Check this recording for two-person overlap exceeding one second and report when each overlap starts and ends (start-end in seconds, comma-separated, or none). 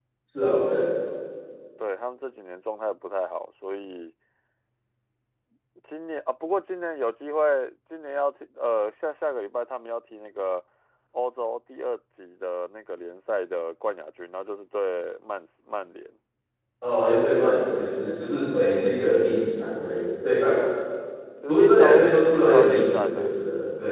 21.5-23.4